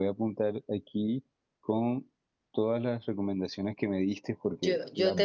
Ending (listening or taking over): taking over